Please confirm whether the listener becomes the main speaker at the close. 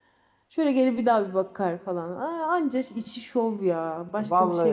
Yes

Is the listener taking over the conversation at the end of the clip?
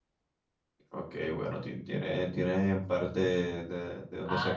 Yes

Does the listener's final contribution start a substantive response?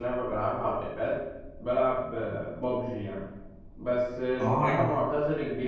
No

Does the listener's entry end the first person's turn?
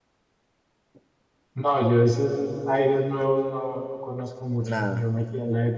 No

